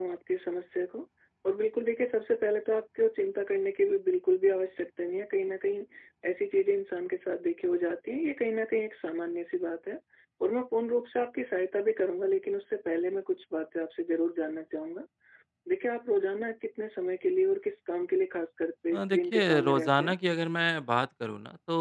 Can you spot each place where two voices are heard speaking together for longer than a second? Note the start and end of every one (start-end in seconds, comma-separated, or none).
18.9-20.1